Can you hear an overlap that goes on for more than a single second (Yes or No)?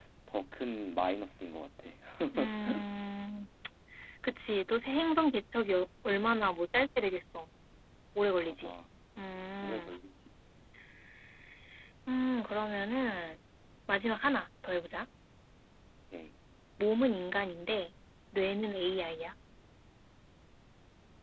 No